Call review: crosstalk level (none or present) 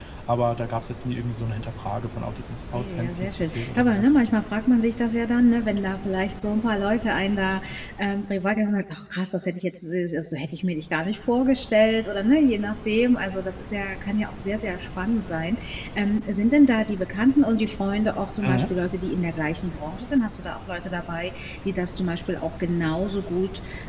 present